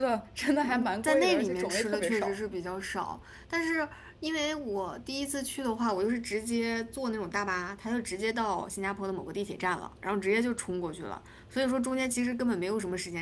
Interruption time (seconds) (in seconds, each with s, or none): 0.6 s